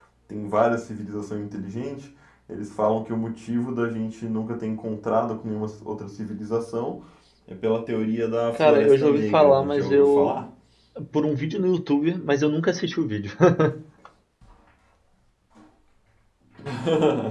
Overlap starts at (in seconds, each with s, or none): 8.6 s